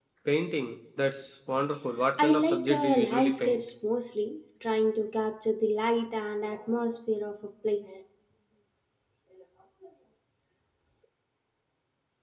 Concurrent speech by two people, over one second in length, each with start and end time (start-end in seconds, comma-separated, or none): 2.2-3.6